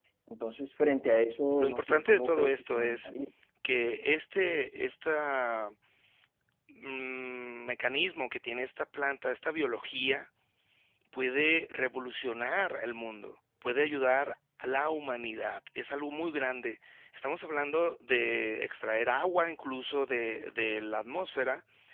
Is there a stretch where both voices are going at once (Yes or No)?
Yes